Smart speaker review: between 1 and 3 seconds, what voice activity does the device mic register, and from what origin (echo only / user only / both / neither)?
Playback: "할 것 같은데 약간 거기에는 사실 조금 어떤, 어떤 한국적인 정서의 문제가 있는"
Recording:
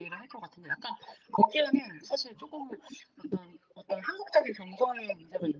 echo only